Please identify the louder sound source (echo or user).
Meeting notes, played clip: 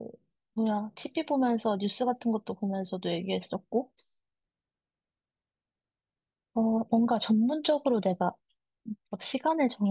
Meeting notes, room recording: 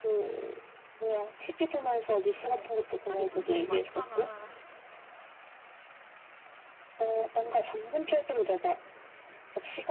echo